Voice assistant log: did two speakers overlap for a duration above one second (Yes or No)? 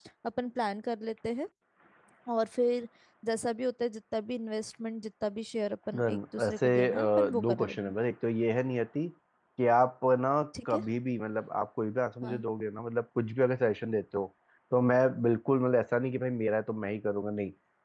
Yes